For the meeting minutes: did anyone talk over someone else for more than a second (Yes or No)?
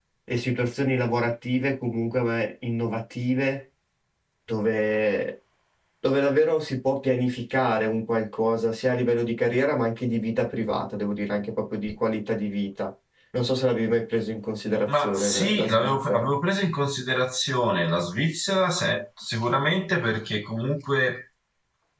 Yes